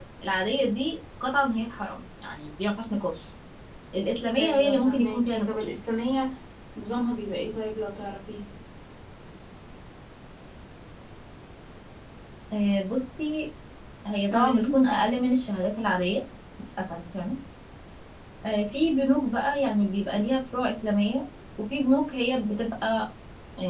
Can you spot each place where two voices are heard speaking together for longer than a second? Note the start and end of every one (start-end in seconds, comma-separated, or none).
4.4-5.6